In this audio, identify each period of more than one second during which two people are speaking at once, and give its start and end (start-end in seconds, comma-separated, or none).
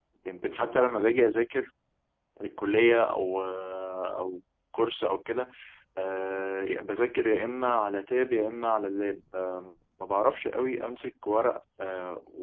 none